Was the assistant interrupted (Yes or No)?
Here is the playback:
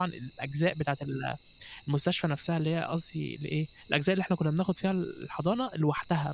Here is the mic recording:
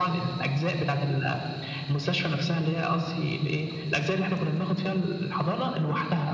No